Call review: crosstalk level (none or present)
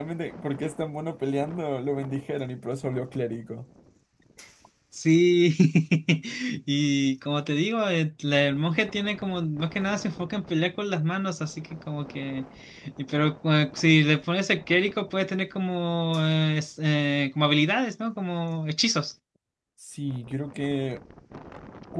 none